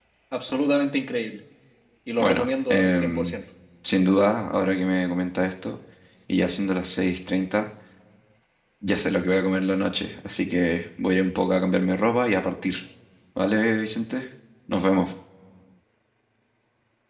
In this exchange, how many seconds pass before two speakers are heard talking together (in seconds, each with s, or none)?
2.2 s